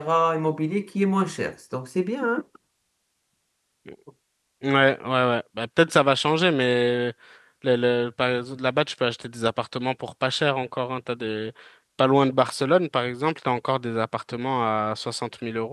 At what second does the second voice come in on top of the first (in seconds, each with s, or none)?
none